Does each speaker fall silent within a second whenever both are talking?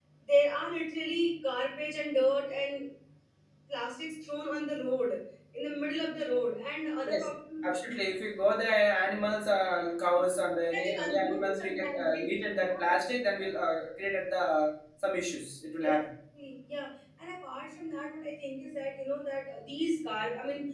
No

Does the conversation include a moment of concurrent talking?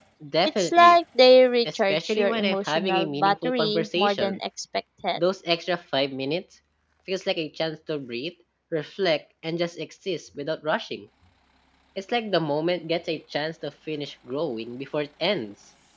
Yes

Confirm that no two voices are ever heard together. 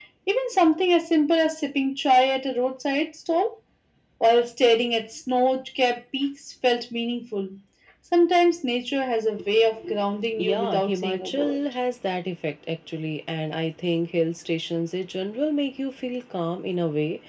No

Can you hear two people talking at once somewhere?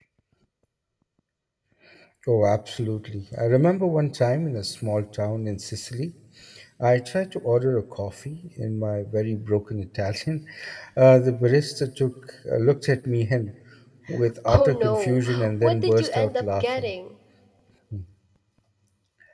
Yes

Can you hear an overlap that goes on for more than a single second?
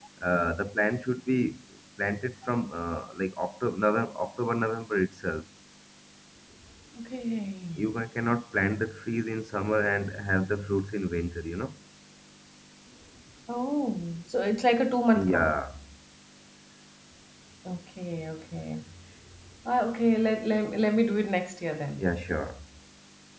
No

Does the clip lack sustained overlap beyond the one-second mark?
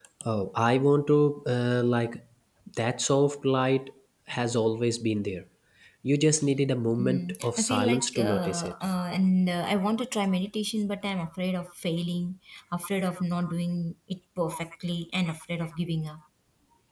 No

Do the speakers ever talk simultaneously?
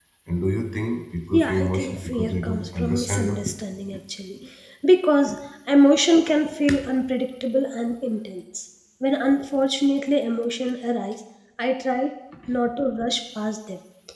Yes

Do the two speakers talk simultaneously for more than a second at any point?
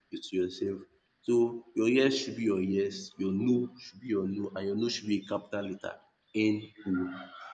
No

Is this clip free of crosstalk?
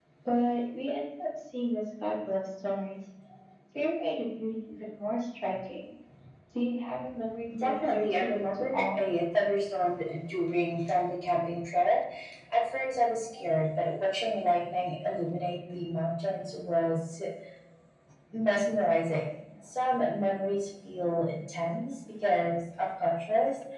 No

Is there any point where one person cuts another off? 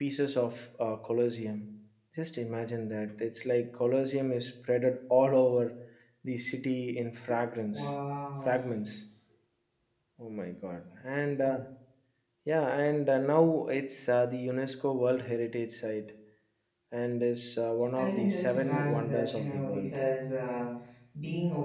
Yes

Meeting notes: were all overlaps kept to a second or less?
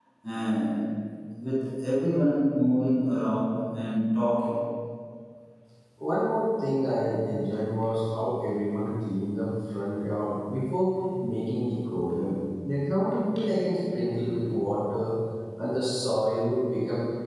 Yes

